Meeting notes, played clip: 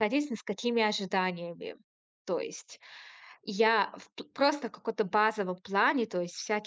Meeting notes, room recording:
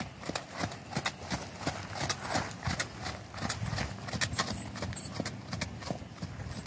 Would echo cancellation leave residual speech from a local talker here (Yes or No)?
No